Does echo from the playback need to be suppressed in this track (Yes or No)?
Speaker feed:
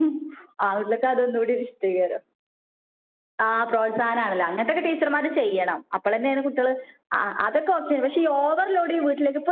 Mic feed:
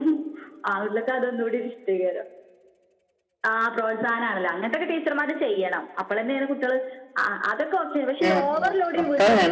Yes